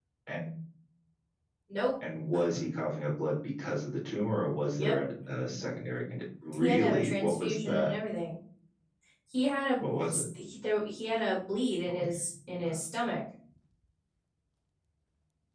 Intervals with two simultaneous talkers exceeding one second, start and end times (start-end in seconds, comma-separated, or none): 6.6-7.9